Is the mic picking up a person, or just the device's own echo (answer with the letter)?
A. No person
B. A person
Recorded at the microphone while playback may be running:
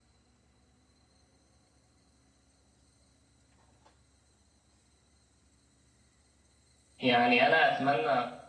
B